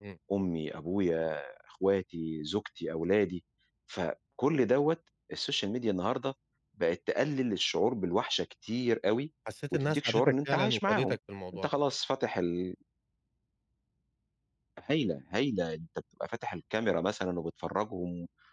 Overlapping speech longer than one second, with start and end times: 9.7-11.2

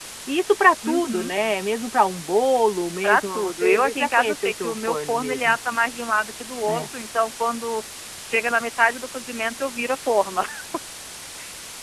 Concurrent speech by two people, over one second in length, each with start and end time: 3.0-5.6

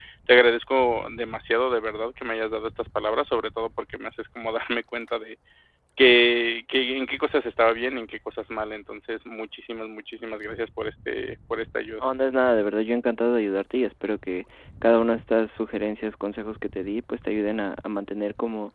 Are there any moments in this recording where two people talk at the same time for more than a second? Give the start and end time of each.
none

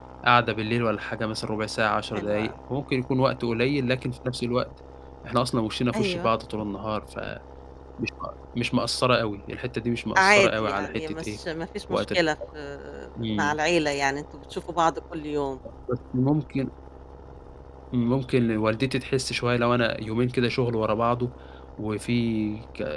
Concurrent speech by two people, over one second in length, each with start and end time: 10.2-11.4

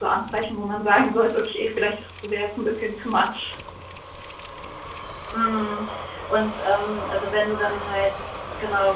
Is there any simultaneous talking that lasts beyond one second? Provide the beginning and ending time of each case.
none

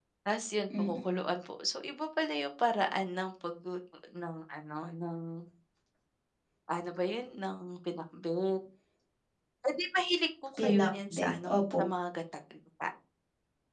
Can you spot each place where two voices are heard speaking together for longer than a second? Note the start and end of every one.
10.6-11.8

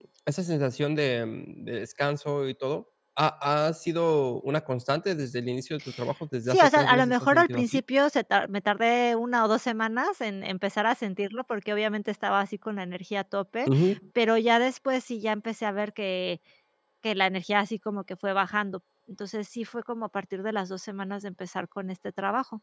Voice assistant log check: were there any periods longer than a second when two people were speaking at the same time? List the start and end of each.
6.5-7.8

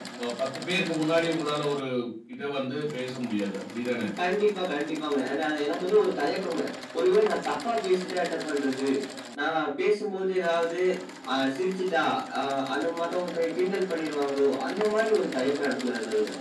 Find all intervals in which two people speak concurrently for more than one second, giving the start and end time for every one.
none

